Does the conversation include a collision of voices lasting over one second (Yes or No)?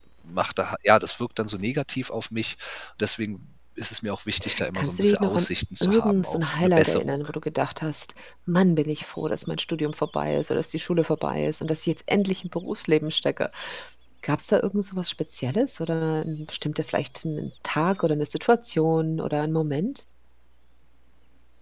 Yes